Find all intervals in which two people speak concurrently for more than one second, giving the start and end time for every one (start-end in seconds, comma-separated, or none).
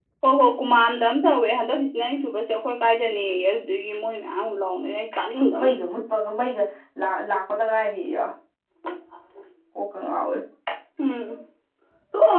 none